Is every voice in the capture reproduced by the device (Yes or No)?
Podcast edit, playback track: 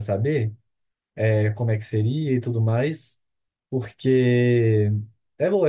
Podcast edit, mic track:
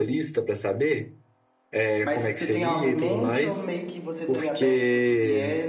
No